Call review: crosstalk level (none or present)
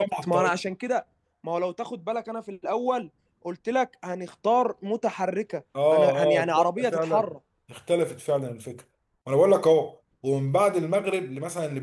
present